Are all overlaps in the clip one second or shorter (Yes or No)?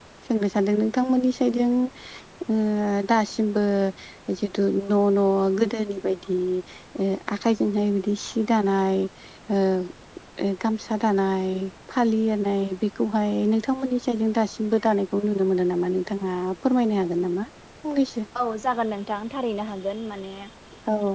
Yes